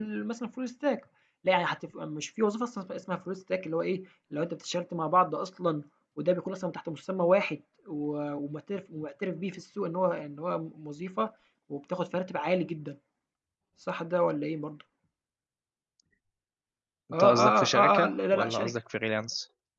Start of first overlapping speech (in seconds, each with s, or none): 17.1 s